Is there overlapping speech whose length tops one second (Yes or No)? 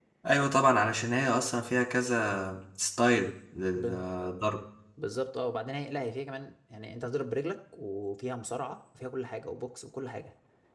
No